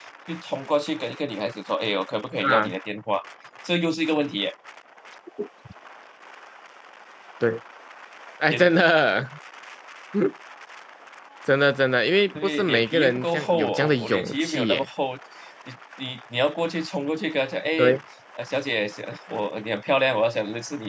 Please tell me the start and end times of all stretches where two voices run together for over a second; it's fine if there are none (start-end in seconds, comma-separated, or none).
12.4-14.8